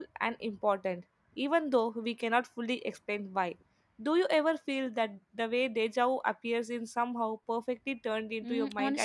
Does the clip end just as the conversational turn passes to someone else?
Yes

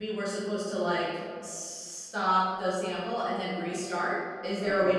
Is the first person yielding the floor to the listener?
No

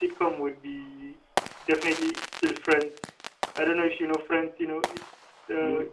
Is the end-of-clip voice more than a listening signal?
No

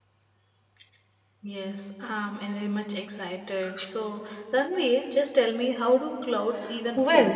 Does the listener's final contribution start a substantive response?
Yes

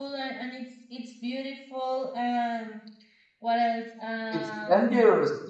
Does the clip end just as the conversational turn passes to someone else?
Yes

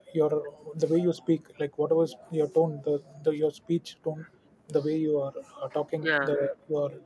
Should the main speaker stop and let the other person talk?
No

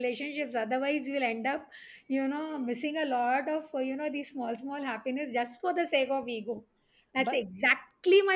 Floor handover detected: No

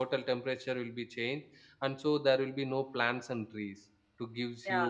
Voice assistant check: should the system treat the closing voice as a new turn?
Yes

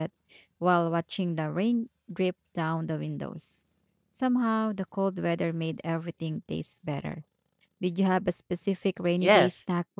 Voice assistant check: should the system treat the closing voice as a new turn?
Yes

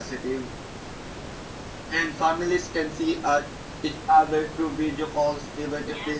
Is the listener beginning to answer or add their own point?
No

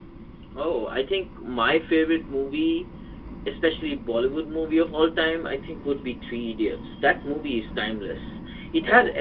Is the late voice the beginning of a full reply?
No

